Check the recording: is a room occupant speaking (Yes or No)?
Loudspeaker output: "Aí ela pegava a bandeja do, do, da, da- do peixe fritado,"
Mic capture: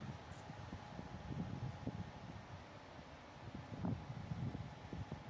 No